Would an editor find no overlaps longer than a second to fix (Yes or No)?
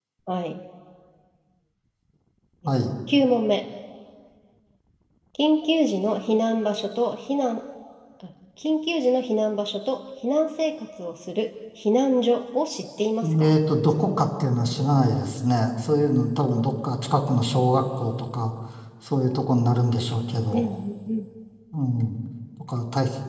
Yes